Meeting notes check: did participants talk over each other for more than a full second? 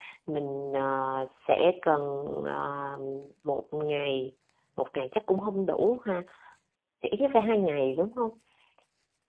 No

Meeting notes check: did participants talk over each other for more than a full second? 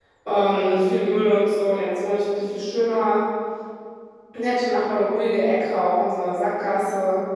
No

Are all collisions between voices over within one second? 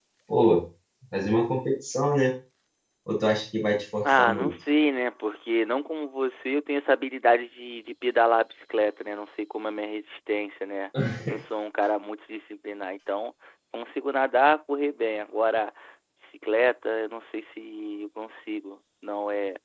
Yes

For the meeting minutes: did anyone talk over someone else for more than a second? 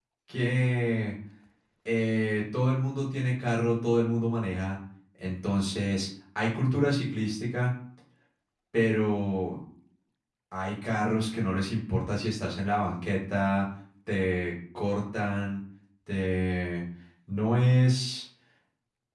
No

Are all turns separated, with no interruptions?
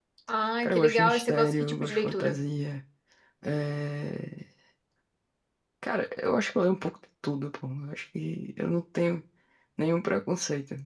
No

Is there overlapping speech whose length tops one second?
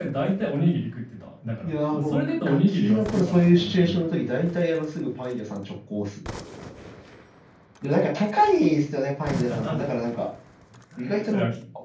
Yes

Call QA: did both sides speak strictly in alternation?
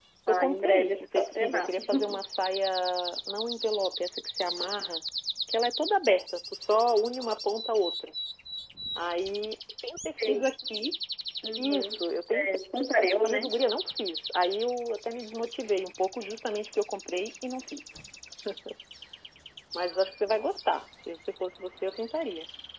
No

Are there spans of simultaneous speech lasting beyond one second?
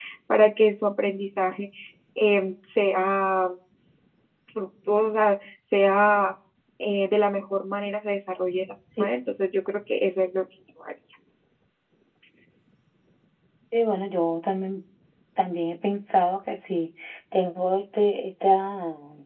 No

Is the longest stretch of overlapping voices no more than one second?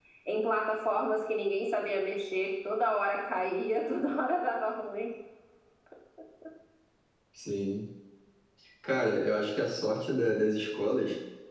Yes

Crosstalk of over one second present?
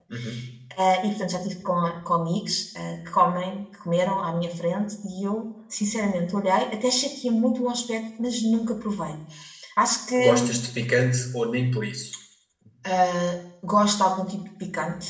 No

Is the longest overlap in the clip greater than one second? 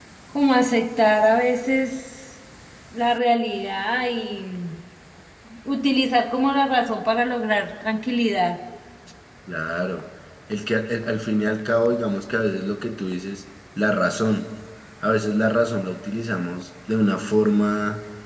No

